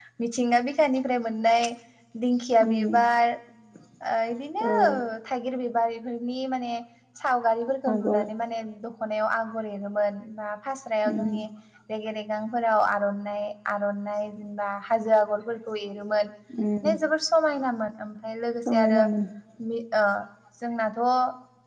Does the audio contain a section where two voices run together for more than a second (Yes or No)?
No